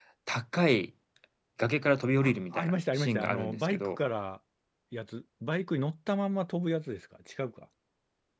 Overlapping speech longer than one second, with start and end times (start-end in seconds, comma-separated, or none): 2.2-3.9